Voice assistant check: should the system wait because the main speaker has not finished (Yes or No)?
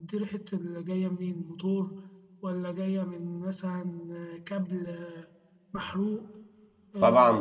No